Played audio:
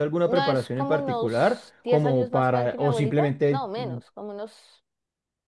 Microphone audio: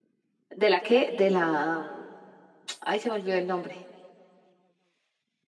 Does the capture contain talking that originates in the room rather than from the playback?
Yes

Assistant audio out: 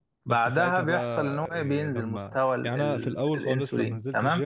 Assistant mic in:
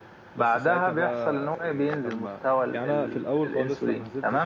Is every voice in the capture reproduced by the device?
Yes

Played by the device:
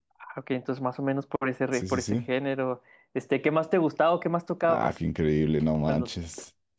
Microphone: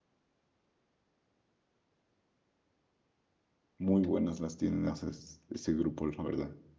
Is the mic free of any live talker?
No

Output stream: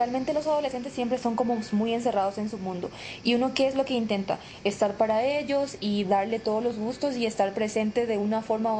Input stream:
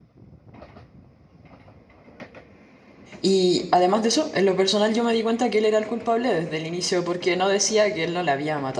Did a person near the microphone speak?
Yes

